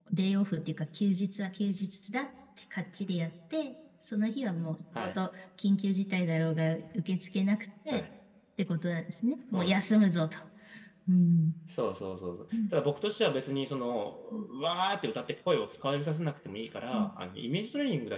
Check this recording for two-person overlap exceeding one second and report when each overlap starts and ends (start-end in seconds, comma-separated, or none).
none